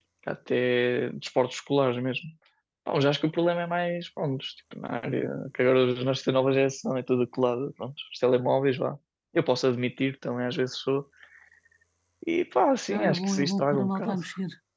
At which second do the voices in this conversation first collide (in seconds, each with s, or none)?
12.9 s